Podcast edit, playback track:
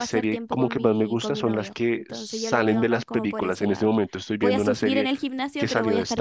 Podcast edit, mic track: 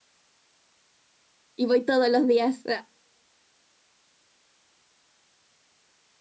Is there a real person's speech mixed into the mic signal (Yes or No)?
Yes